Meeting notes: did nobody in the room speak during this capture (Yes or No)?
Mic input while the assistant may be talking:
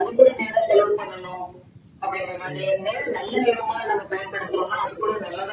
No